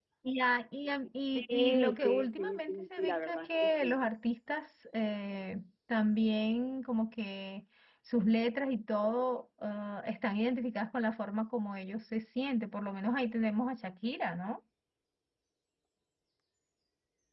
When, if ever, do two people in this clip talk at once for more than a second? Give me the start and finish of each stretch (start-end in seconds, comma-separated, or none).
1.4-3.9